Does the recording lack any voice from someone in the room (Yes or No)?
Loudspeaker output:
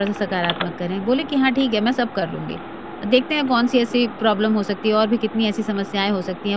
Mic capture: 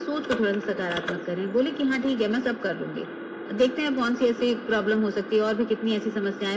Yes